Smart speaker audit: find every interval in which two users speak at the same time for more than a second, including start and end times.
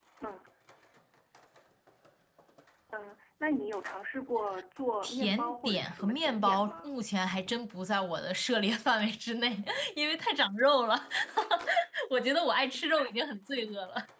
5.0-6.9

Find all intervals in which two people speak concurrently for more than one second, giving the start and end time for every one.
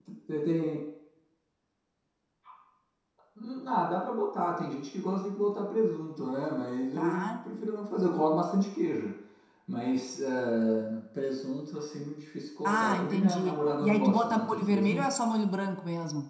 12.6-15.1

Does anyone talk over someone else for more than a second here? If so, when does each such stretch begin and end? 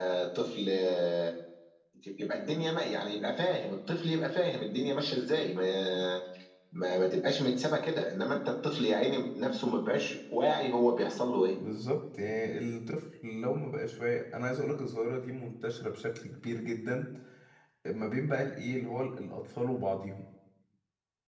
none

